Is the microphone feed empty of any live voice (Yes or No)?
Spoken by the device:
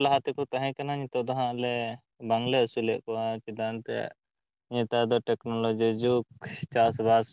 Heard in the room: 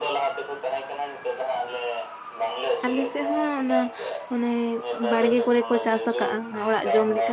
No